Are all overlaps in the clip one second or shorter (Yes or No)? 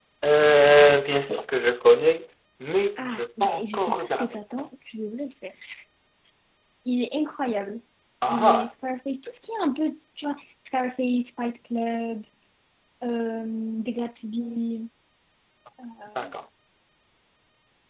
No